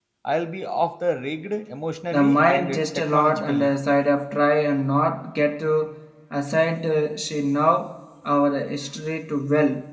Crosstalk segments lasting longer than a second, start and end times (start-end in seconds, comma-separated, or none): 2.1-3.7